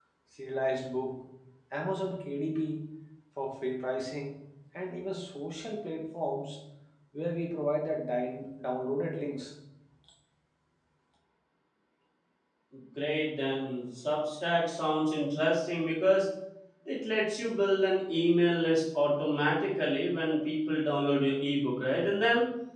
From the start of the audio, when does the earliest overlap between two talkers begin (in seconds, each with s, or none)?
none